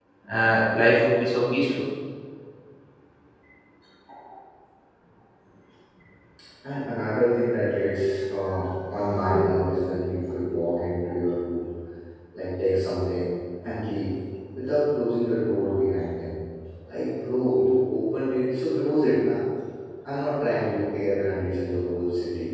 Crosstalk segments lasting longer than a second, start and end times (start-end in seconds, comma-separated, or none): none